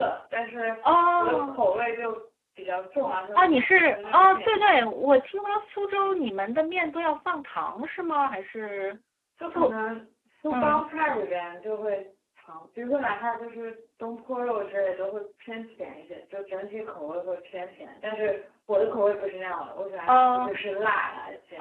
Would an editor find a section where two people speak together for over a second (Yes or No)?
Yes